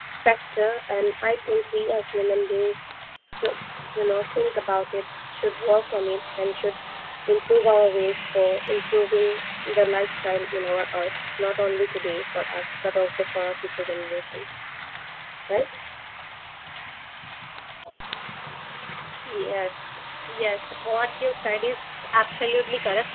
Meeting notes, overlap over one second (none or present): none